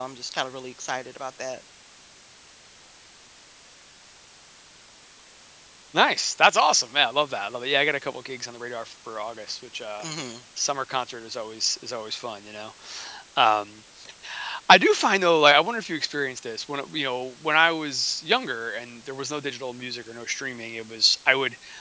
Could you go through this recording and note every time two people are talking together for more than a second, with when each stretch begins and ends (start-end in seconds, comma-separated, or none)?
none